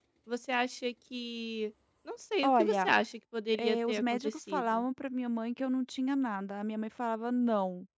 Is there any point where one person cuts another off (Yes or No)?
Yes